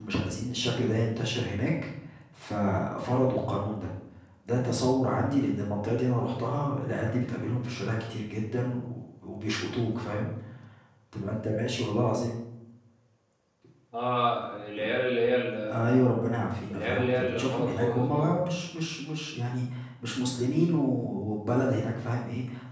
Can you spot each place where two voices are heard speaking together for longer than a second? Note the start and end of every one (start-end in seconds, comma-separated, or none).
16.7-18.4